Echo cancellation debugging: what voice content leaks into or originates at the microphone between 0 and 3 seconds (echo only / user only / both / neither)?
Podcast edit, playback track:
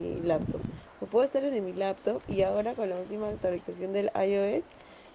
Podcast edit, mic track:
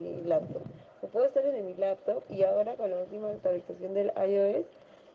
echo only